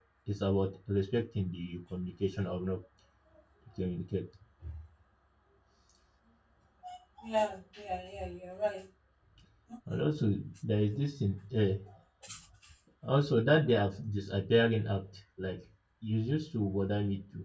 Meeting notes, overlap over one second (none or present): none